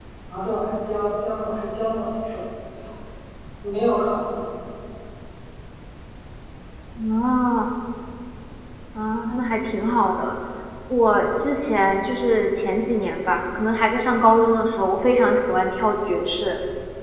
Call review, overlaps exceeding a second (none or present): none